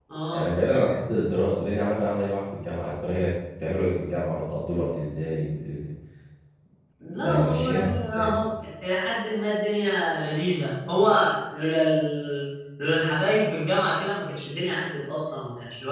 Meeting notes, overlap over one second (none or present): present